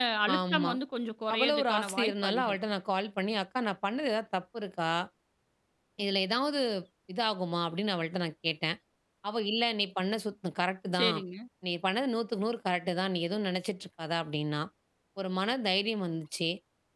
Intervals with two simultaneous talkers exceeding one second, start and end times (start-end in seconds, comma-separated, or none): 1.3-2.6